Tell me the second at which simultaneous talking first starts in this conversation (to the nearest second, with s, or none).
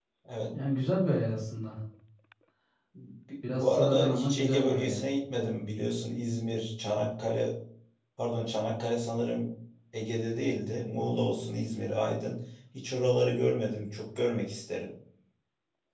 3 s